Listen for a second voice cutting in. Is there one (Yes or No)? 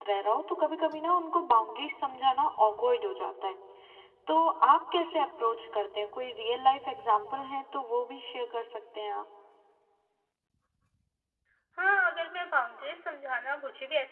No